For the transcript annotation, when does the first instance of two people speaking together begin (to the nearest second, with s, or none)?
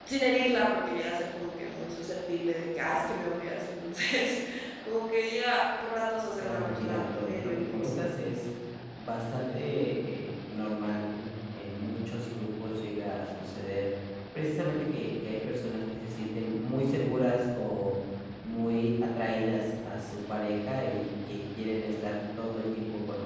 6 s